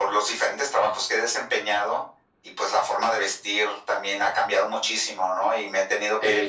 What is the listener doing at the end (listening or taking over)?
listening